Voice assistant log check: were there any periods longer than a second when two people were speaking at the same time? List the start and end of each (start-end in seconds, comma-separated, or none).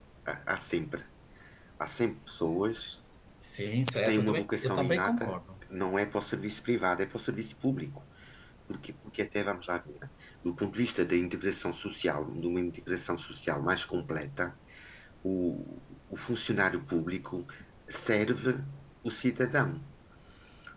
4.0-5.4